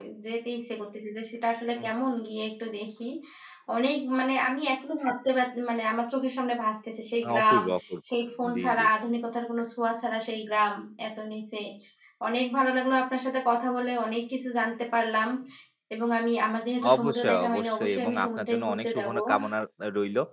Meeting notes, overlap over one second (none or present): present